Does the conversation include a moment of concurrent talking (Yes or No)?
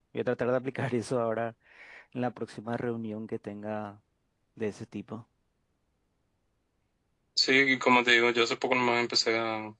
No